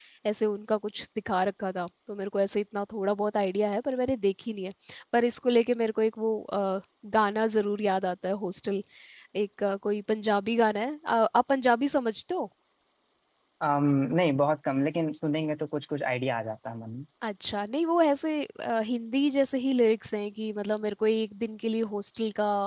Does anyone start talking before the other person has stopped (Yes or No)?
No